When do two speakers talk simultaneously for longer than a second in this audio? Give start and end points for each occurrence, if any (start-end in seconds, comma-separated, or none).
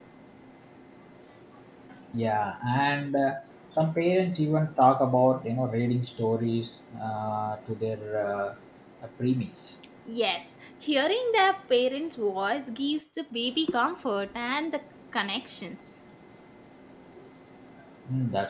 none